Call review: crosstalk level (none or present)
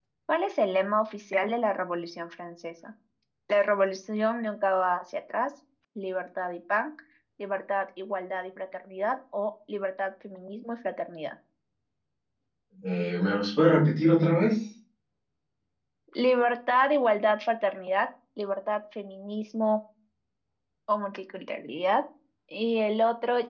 none